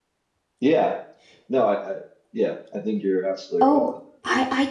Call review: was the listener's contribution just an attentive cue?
No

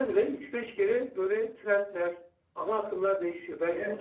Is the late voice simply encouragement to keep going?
No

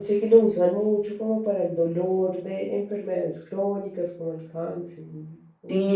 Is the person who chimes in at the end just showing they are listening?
No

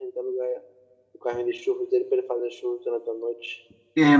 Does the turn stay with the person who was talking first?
No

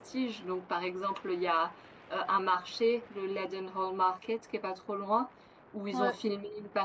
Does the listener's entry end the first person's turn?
No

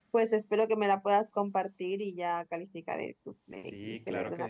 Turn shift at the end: Yes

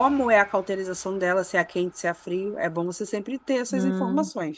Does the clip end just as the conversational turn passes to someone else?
Yes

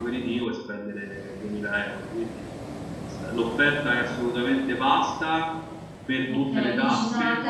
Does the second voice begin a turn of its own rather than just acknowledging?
Yes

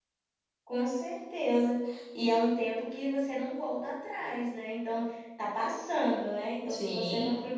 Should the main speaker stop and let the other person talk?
No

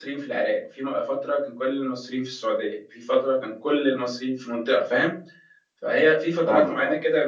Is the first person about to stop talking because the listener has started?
No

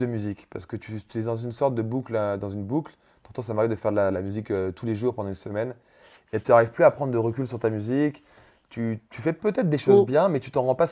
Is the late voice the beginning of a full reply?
No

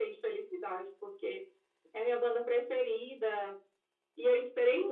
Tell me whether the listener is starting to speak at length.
Yes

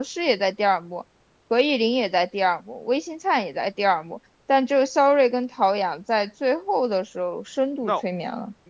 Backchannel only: No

